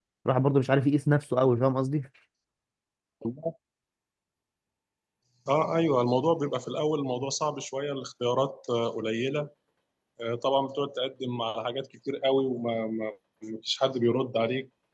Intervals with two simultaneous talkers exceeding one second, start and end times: none

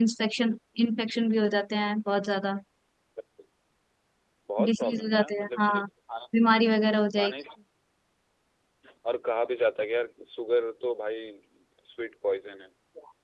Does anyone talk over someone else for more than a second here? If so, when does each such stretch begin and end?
4.6-5.8

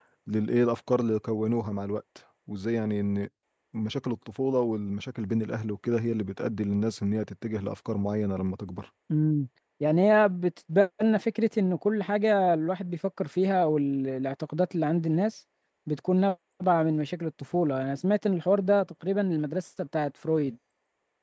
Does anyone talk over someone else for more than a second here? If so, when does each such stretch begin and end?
none

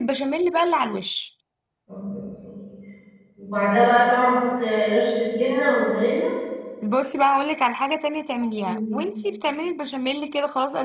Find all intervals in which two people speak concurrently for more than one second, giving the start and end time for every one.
none

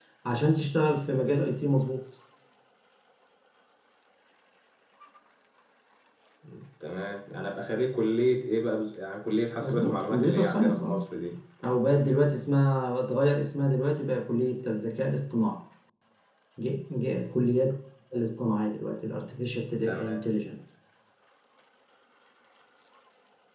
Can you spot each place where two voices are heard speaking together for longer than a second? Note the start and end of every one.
9.6-11.0

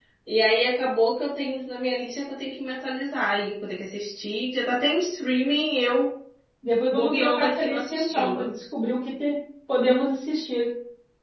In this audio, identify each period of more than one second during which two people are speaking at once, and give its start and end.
6.9-8.5

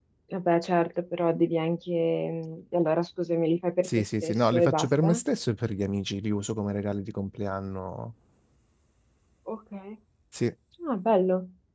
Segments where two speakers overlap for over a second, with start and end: 3.8-5.2

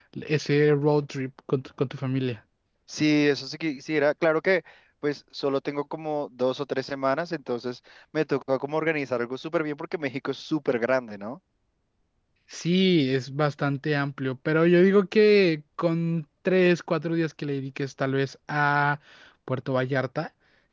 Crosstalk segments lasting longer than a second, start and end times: none

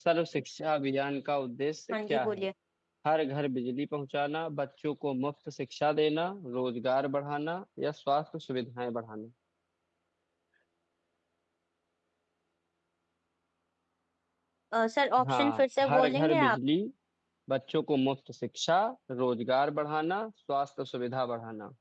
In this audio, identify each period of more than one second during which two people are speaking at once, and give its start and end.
15.3-16.6

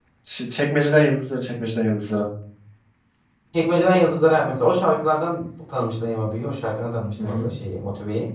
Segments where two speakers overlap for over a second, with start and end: none

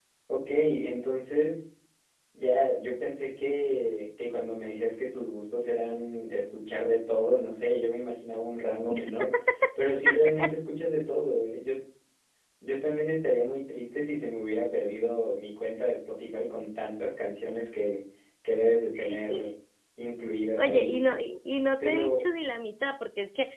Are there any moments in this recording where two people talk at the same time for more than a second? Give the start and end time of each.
none

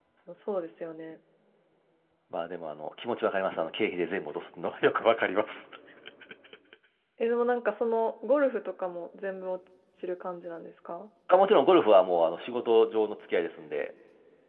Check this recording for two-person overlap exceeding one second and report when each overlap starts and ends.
none

